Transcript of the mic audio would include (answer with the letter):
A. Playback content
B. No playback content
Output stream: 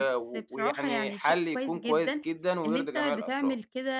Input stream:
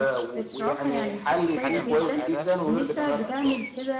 A